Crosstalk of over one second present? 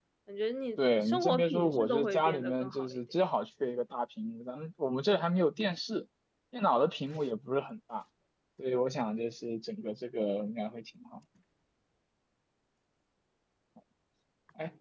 Yes, from 0.8 s

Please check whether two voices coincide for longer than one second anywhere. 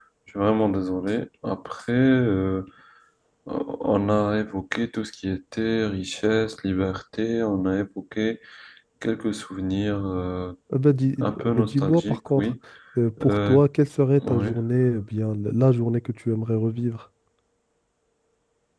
Yes, from 11.2 s

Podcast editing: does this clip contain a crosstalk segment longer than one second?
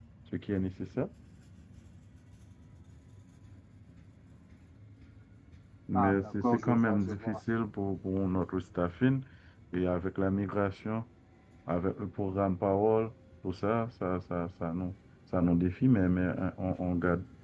Yes, from 5.9 s

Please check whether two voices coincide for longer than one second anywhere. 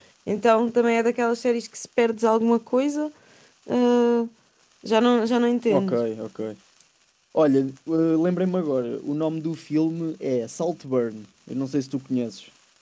No

